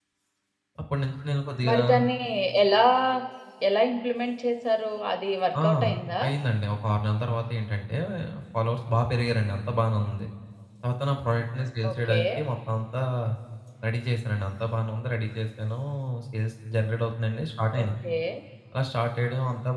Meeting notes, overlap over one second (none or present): none